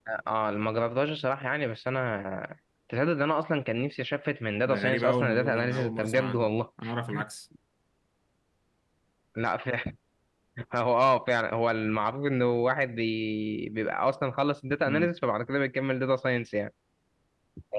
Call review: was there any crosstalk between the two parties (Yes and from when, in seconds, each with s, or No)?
Yes, from 4.7 s